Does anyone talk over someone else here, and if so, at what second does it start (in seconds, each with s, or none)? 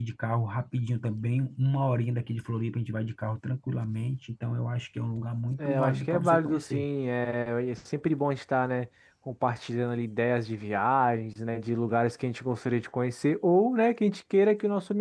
5.6 s